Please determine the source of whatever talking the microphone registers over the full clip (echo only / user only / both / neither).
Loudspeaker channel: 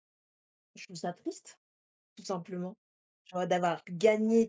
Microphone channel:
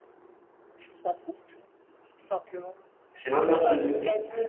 both